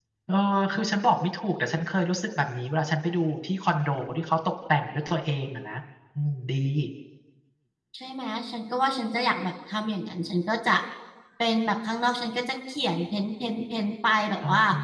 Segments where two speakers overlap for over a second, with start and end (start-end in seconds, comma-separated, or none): none